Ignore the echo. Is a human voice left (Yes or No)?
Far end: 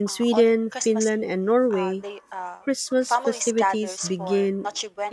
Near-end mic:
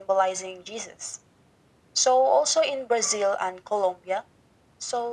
Yes